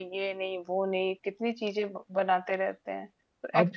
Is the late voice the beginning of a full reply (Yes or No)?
Yes